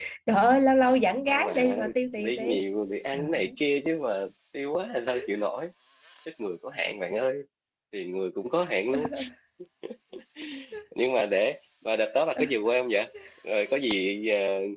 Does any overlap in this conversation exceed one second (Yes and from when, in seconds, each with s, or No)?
Yes, from 1.3 s